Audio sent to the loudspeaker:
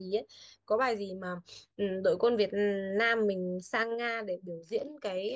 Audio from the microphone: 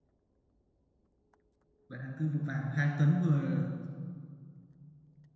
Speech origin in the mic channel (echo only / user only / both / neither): user only